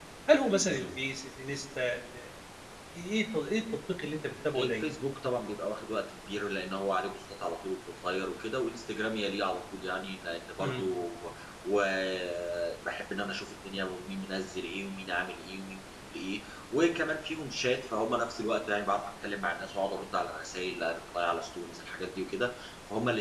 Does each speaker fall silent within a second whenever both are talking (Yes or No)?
Yes